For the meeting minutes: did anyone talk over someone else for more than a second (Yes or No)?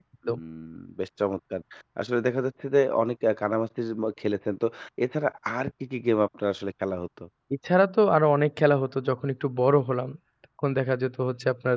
No